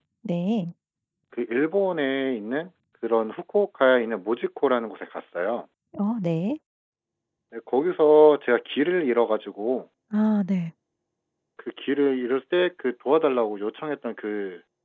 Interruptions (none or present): none